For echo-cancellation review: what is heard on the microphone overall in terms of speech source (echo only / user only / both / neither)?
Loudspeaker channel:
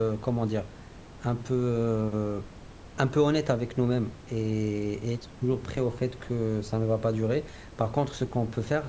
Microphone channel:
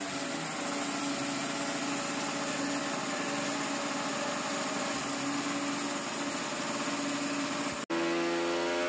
neither